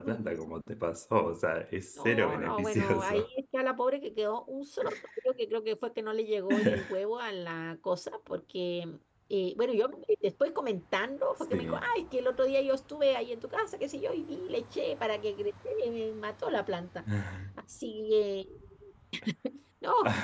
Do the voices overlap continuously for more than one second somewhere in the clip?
Yes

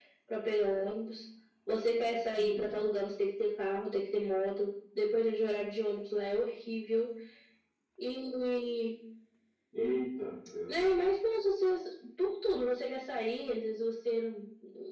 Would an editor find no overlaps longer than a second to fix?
Yes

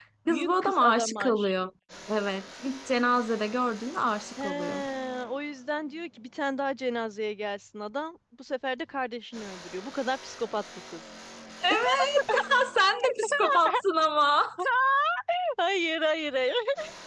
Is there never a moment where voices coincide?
No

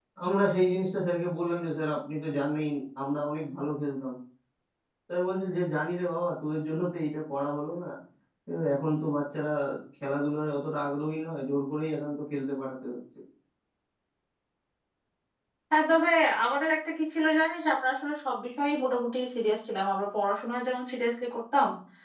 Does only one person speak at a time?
Yes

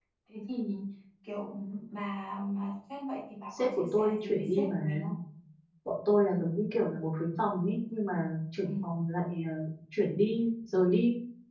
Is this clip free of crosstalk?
No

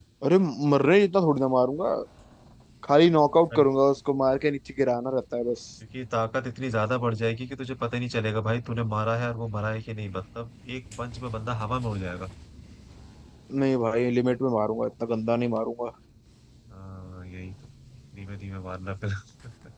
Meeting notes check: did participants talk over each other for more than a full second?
No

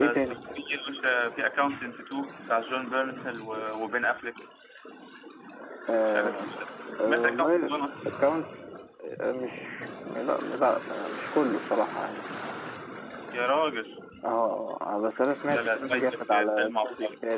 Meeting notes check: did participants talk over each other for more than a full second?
Yes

